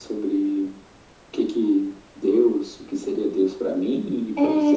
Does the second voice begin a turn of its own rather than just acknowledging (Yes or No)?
Yes